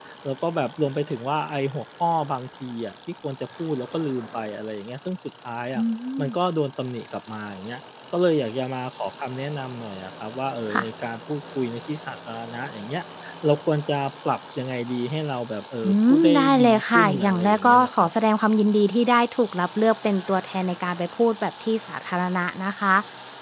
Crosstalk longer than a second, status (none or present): present